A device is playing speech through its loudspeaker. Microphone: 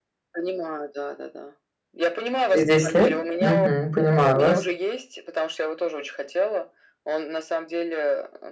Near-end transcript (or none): Через 10 лет? Мгм. Понимаю вас.